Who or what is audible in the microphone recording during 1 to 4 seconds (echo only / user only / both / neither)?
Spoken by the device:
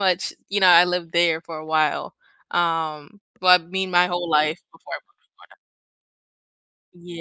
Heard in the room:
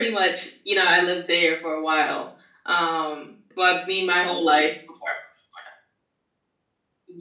echo only